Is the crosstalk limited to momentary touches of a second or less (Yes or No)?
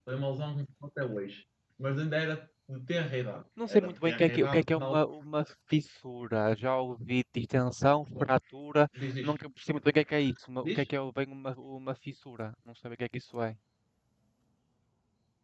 No